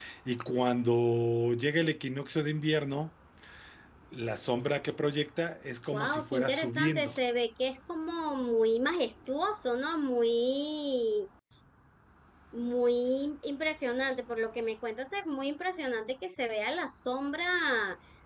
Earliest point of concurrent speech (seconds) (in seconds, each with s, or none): 5.9 s